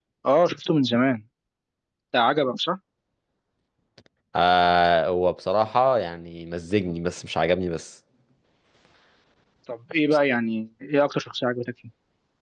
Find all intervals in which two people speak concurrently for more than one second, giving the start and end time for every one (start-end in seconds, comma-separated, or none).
none